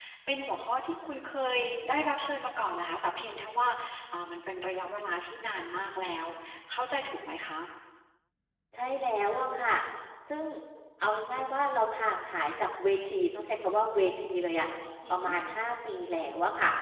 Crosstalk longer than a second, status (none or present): none